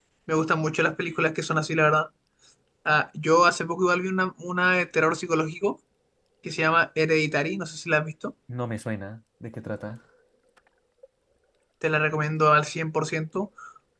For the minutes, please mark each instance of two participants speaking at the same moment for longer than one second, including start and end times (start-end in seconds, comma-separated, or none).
none